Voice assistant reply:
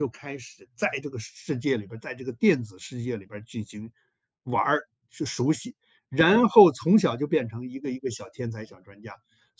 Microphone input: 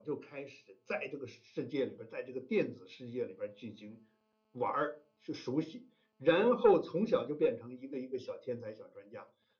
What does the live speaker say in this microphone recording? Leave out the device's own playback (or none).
none